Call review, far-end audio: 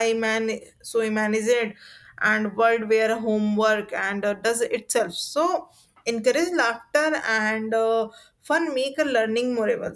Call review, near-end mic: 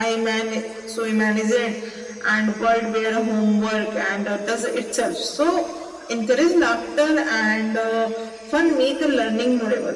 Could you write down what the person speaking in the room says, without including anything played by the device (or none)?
none